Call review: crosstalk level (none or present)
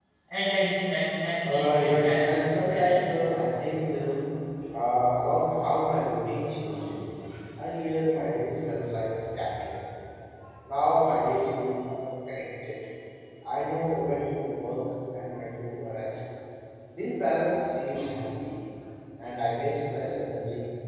present